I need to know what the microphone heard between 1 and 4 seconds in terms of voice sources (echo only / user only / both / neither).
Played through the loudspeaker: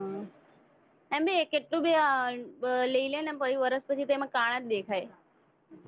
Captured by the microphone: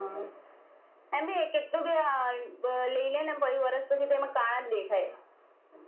echo only